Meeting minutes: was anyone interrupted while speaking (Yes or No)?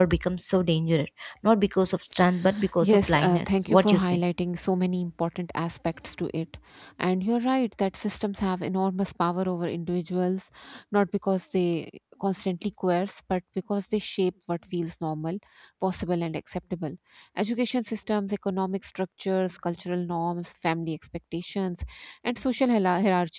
Yes